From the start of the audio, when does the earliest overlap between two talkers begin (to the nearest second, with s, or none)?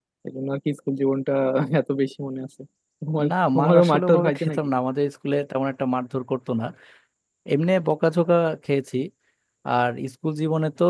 3 s